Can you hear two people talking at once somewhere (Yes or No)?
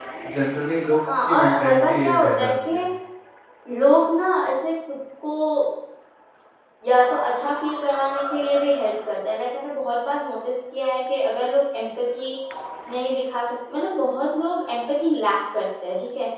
Yes